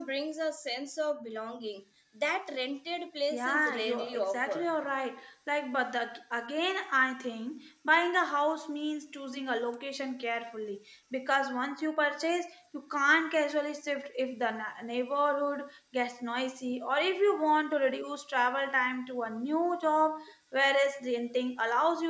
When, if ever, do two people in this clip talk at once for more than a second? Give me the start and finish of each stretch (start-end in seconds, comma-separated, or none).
3.3-4.6